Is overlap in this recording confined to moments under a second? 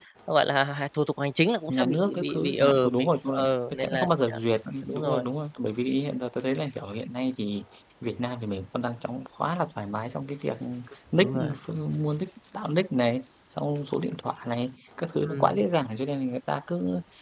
No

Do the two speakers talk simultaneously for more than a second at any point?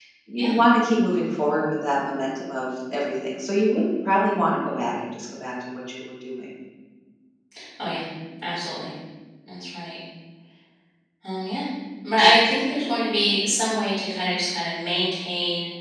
No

